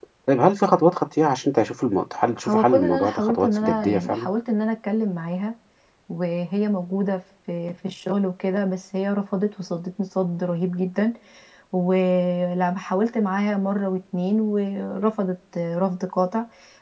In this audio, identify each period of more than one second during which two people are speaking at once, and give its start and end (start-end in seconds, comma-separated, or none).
2.4-4.3